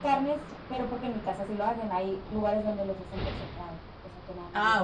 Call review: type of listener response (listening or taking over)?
taking over